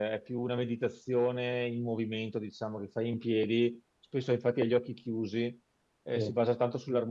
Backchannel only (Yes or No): Yes